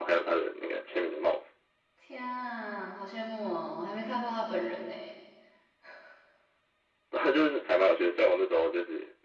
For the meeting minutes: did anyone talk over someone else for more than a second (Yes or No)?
No